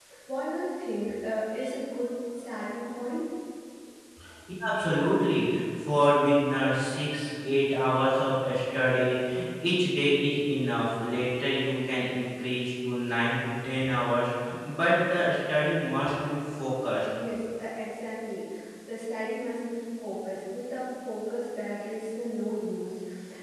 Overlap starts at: none

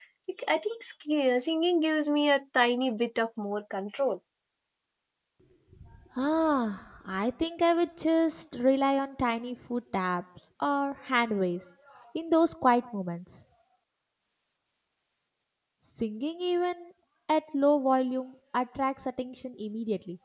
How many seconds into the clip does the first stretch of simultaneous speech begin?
none

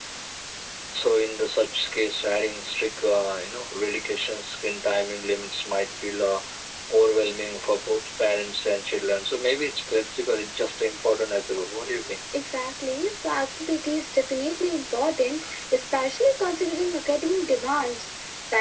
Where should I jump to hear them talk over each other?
none

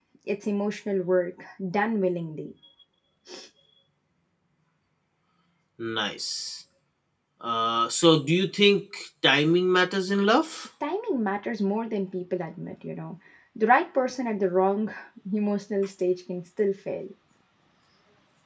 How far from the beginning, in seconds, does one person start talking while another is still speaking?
none

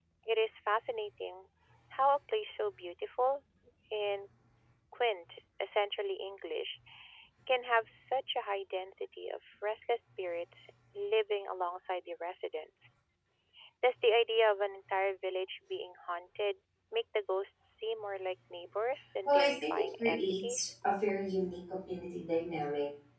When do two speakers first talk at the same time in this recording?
19.2 s

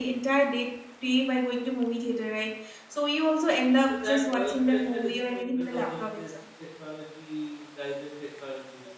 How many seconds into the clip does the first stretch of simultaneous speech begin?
3.9 s

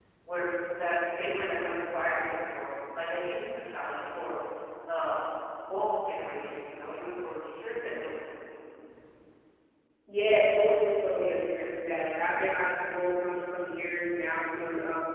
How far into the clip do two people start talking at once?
none

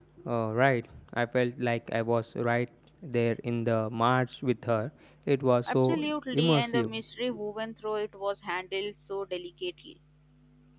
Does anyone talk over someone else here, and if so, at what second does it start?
5.7 s

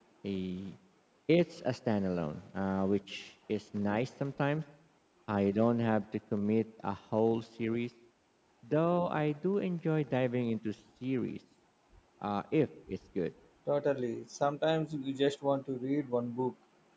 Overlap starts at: none

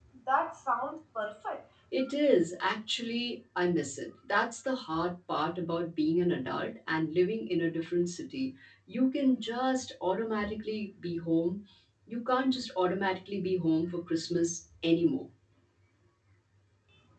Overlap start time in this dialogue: none

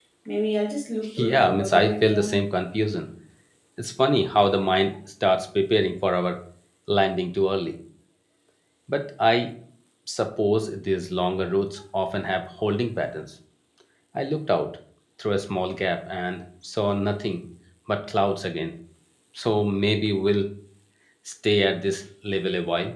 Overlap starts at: 1.2 s

